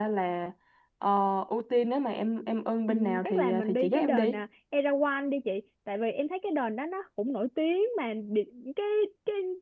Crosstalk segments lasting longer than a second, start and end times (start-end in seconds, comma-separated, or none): 2.9-4.4